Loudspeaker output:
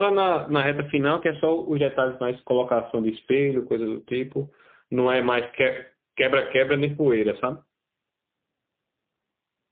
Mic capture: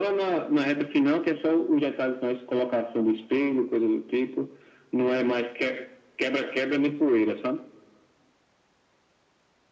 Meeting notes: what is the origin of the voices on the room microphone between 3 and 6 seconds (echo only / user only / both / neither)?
echo only